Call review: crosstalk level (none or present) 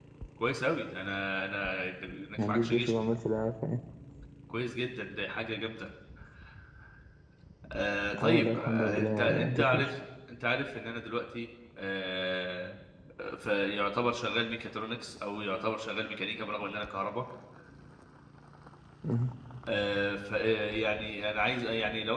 present